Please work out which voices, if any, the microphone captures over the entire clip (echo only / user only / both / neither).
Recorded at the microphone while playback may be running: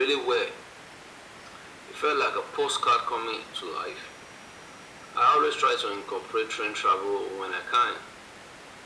echo only